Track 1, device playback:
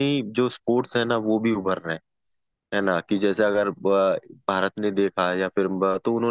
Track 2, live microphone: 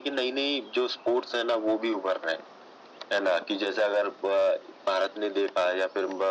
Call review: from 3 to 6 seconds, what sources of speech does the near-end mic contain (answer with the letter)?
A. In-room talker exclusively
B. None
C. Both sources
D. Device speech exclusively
D